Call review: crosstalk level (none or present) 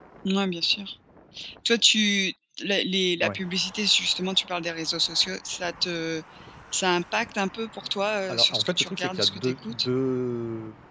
present